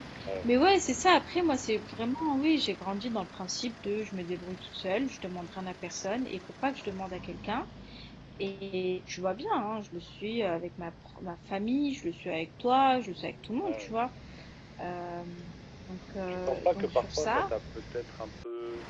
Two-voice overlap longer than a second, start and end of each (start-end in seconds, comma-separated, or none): 16.3-17.5